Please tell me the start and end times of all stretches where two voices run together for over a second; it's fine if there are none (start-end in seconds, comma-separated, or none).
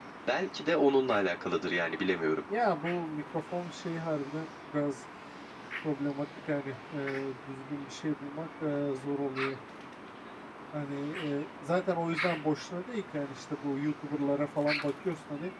none